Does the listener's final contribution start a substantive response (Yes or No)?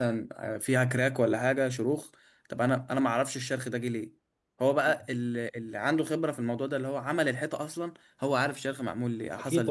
Yes